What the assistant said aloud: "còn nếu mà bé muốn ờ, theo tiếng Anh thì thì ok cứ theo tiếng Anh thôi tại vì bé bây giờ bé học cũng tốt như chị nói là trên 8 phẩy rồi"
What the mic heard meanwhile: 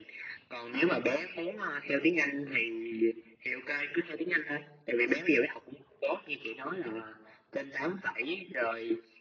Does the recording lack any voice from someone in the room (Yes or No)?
Yes